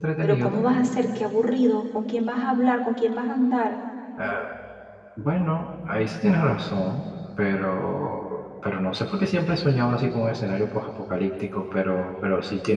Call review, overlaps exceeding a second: none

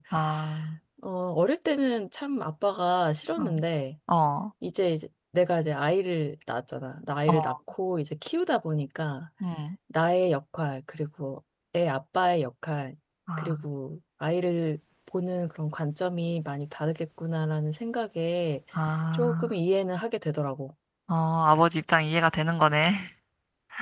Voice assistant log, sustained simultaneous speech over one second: none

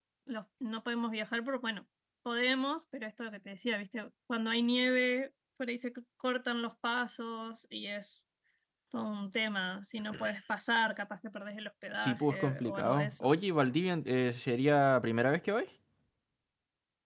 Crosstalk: present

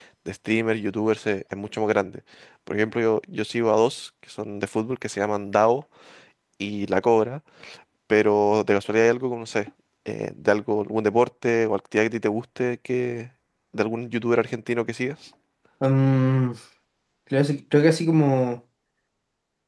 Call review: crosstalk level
none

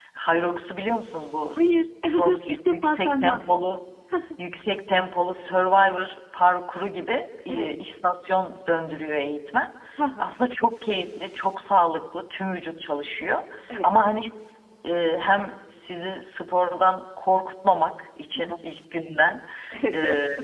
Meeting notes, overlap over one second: present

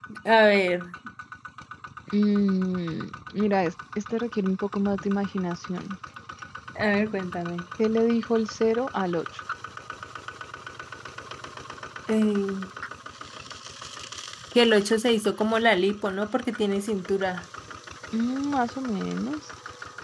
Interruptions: none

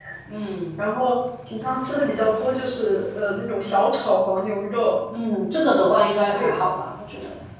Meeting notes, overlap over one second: none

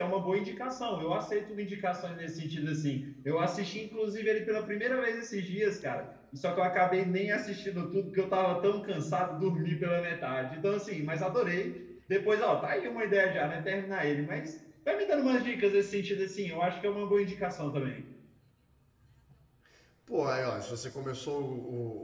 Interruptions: none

